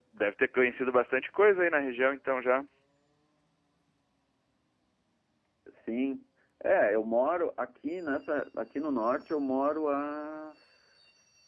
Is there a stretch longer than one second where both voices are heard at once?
No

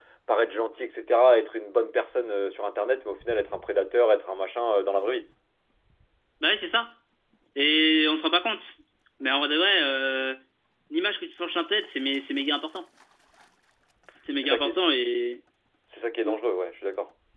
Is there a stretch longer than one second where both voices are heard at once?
No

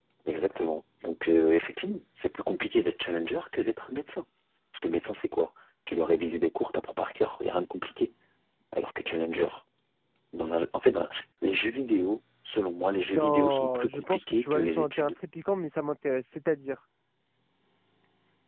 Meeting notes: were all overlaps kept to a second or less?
No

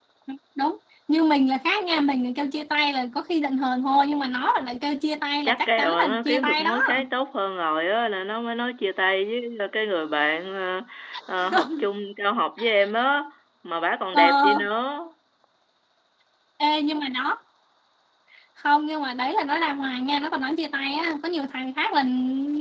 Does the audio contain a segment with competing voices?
Yes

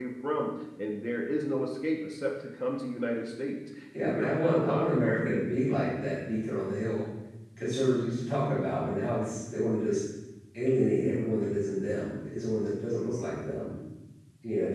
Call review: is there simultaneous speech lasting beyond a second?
Yes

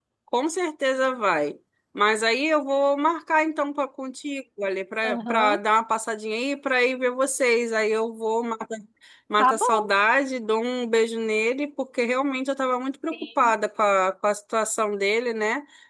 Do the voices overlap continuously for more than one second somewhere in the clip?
No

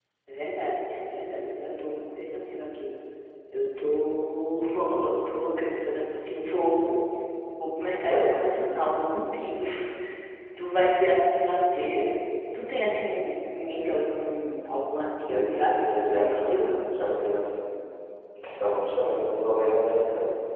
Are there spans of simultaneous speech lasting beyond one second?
Yes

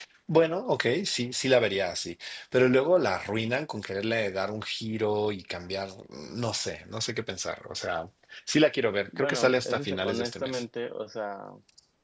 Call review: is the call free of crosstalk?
No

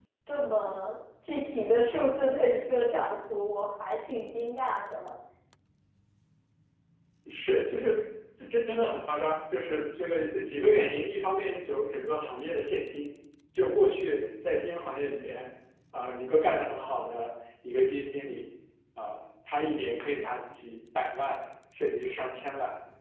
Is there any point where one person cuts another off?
No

